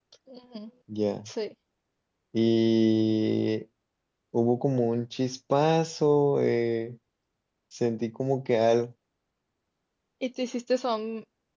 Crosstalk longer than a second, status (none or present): none